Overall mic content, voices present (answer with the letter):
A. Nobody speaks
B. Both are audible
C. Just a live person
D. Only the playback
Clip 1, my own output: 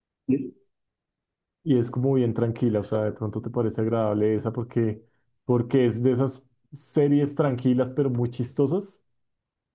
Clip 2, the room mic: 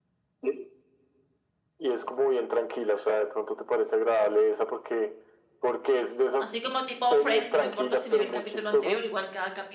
B